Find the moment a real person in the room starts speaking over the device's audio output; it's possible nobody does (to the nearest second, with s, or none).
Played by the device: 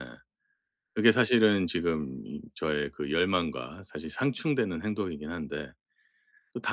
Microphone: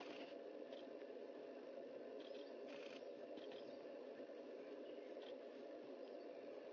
none